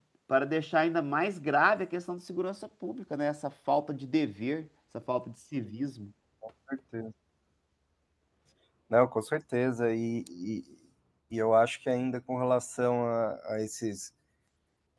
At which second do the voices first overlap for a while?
none

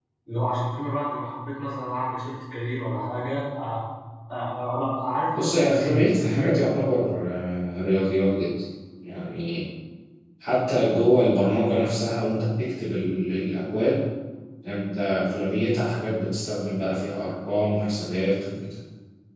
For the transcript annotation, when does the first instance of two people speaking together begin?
5 s

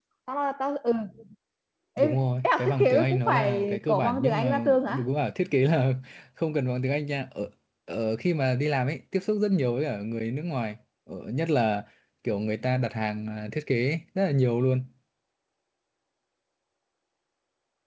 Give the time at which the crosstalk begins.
2 s

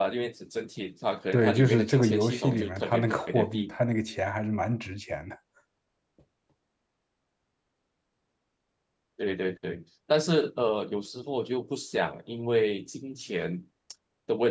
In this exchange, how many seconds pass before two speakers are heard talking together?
1 s

